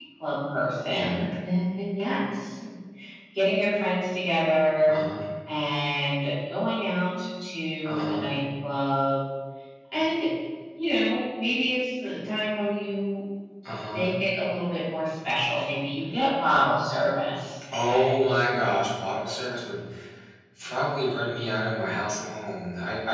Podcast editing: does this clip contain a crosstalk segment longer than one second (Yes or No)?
No